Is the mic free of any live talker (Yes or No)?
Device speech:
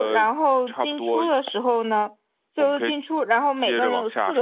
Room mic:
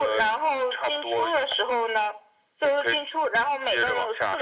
Yes